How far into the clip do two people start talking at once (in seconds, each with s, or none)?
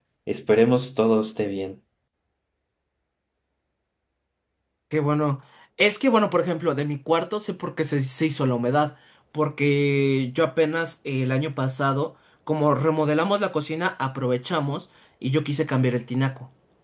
none